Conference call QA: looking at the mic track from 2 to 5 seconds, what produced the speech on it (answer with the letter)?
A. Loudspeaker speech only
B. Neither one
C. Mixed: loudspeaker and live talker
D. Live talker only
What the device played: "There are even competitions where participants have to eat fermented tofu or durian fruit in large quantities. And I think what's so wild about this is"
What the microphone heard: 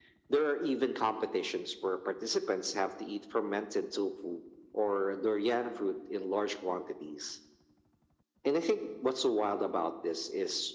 A